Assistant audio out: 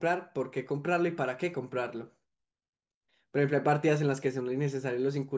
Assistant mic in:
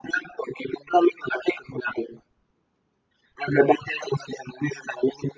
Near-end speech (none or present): none